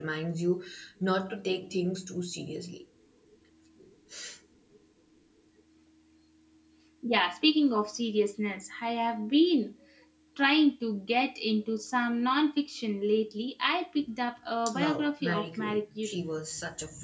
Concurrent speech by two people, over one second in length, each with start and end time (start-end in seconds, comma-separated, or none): 14.7-16.2